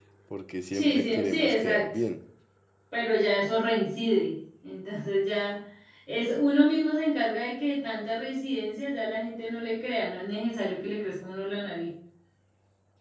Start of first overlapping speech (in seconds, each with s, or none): 0.7 s